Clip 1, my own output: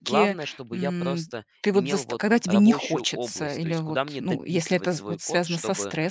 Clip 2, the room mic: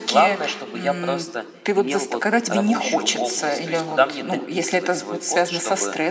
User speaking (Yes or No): No